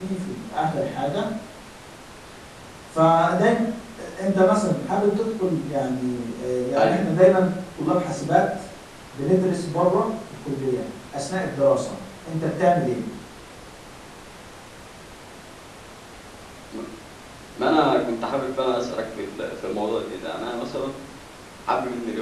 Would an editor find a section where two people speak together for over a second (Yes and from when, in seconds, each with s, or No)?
No